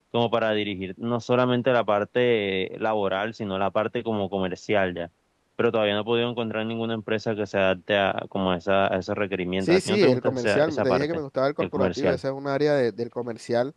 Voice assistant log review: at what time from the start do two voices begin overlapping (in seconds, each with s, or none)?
9.6 s